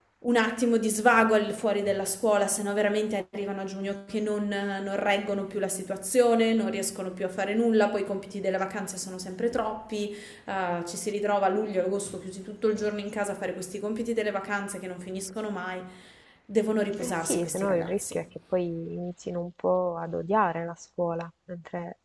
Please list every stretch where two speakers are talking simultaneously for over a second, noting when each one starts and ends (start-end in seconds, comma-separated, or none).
17.0-18.2